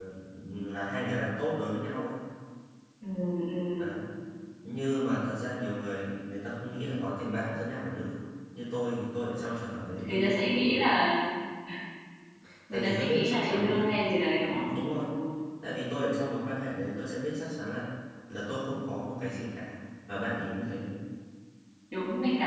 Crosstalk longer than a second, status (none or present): present